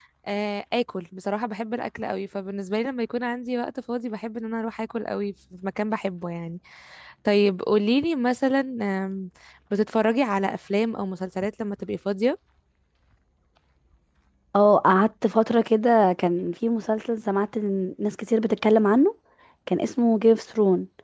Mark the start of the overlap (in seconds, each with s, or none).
none